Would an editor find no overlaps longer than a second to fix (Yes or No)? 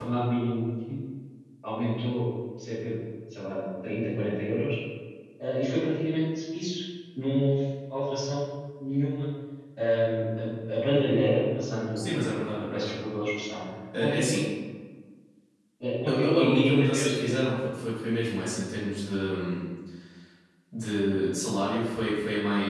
No